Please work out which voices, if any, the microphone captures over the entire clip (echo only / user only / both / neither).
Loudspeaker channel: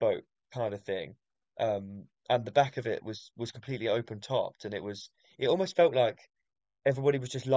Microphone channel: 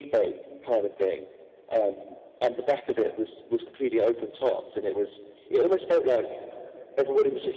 echo only